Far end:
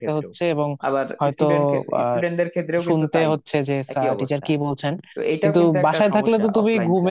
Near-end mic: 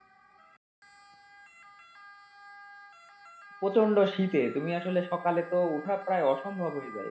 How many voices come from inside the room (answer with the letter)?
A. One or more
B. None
A